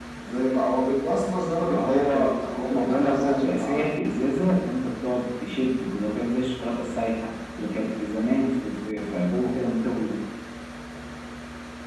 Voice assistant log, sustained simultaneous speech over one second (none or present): present